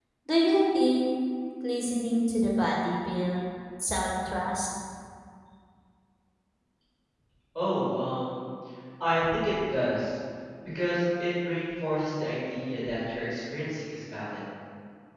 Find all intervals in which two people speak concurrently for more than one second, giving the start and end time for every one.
none

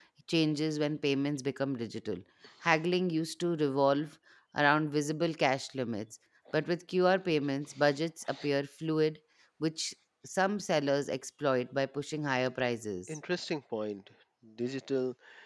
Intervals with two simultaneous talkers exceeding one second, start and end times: none

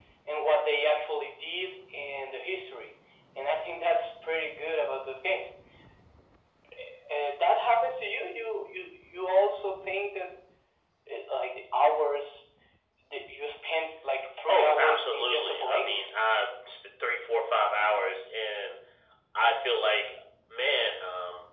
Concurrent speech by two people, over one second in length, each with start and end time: 14.5-16.0

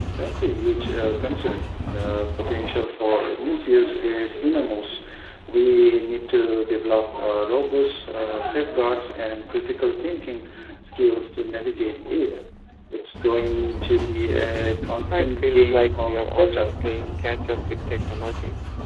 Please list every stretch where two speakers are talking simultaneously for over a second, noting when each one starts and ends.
15.1-16.7

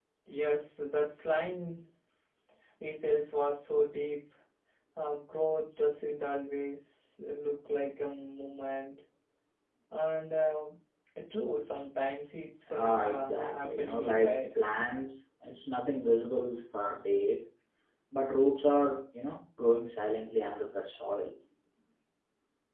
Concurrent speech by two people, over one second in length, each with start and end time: 12.7-14.4

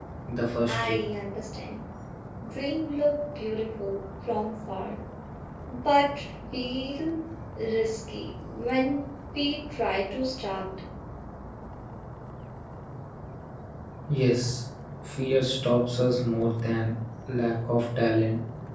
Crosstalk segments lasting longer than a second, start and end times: none

